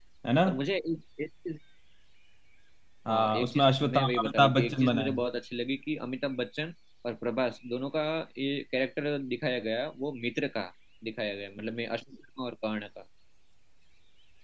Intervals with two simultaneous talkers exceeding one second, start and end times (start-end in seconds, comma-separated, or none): 3.1-5.2